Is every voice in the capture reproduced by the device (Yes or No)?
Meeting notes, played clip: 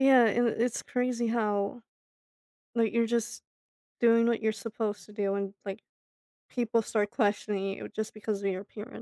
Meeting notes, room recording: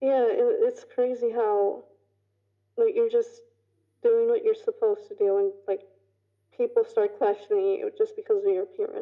Yes